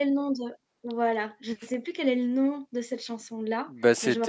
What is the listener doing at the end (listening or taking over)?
taking over